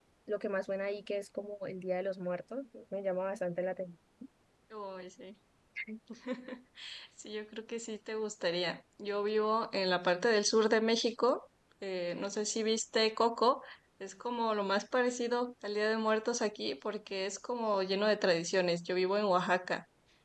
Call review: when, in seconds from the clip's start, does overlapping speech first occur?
none

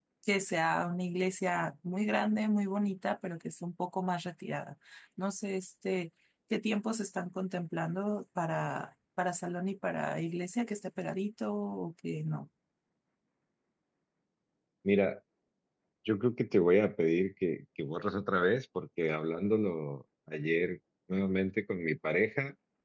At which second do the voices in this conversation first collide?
none

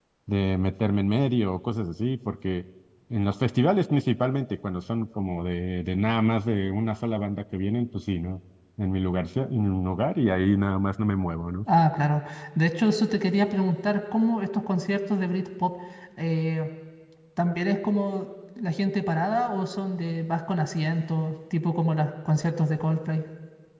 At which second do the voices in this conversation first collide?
none

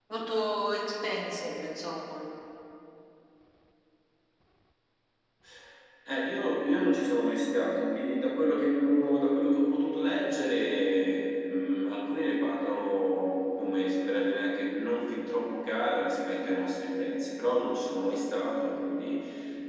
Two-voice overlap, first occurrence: none

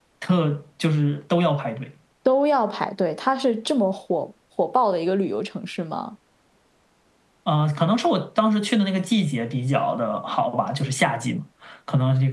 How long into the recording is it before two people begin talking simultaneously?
none

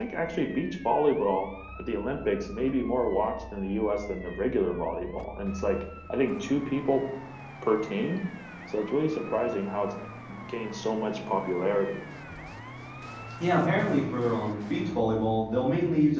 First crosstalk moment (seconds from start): none

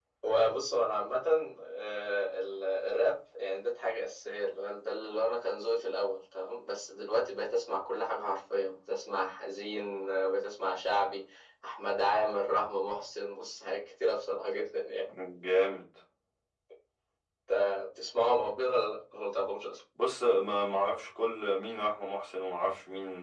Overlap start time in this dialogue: none

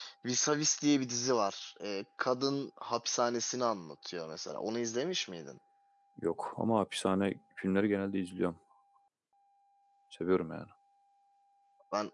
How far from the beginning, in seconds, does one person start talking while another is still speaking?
none

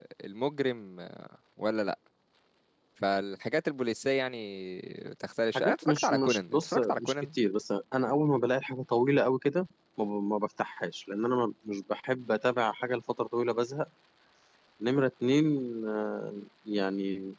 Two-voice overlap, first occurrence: 5.5 s

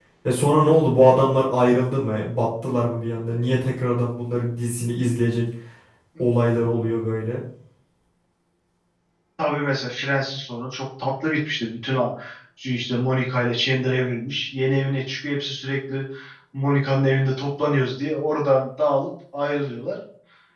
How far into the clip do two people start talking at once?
none

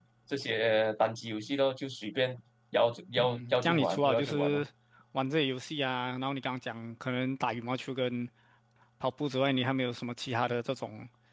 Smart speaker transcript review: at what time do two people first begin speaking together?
3.2 s

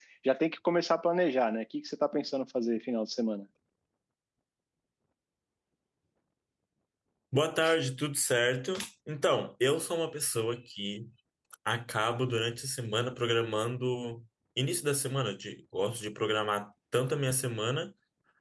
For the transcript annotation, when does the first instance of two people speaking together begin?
none

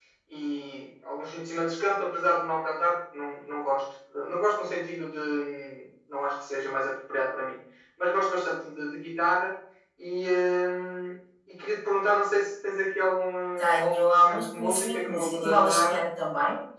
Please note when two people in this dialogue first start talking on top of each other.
13.6 s

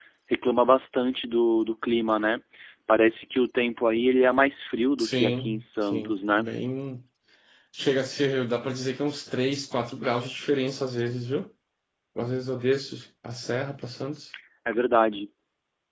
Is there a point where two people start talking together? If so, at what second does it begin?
5.0 s

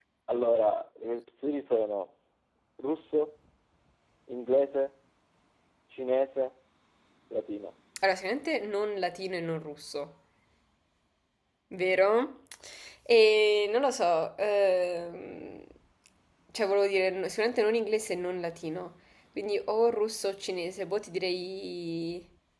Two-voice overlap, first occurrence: none

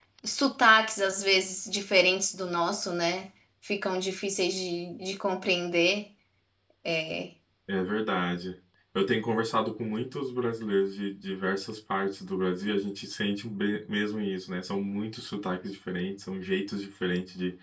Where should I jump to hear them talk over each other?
none

